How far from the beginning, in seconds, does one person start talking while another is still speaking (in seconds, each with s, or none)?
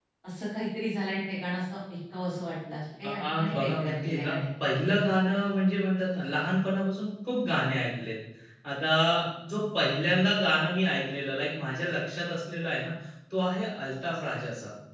3.0 s